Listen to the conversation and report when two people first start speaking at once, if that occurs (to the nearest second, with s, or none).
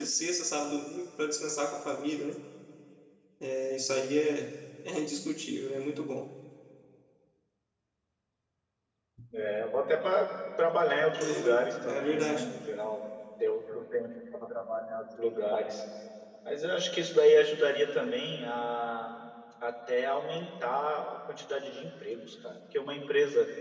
11 s